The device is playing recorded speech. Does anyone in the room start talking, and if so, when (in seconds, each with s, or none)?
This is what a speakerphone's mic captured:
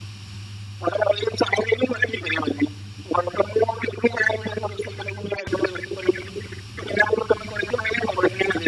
none